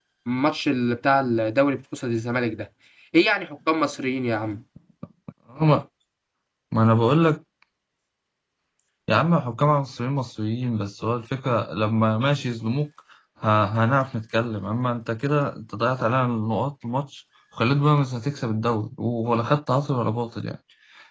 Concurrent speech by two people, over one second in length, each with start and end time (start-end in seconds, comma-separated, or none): none